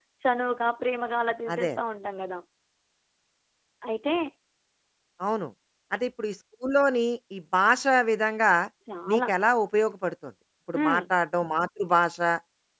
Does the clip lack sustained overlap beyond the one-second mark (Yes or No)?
Yes